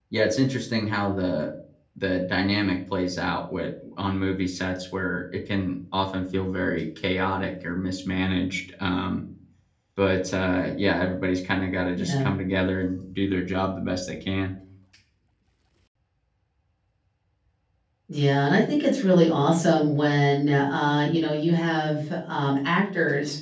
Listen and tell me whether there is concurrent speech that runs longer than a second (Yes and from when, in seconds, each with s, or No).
No